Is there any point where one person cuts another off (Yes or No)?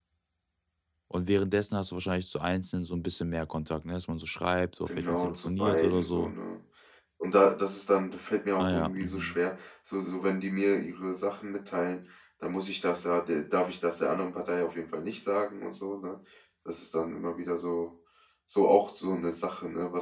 Yes